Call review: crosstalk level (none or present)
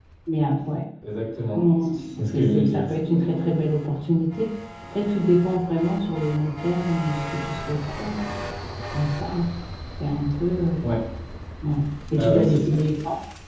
present